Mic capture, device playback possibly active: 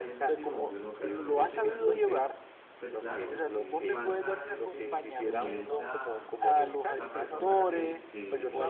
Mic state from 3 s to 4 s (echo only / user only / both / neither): both